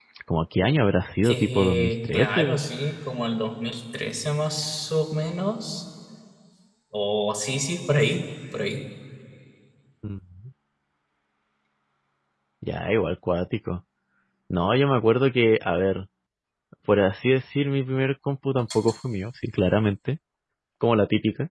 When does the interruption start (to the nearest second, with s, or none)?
1 s